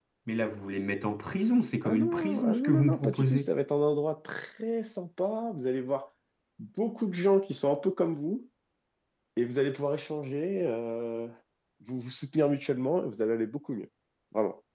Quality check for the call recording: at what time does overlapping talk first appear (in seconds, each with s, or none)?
1.8 s